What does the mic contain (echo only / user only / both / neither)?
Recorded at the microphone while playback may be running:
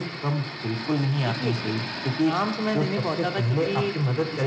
both